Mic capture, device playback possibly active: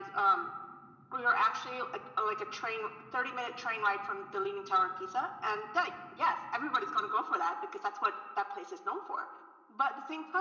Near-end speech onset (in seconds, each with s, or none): none